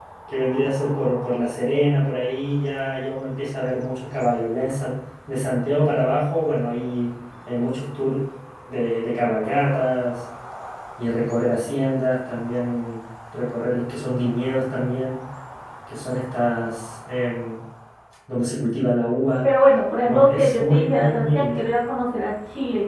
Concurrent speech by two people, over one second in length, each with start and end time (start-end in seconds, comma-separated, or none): 20.1-21.6